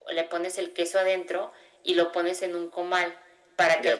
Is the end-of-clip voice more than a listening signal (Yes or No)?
No